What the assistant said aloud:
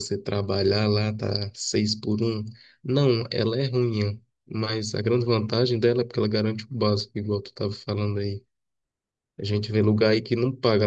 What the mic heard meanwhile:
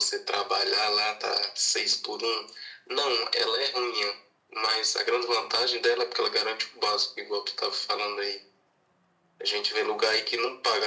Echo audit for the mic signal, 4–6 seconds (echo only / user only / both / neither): echo only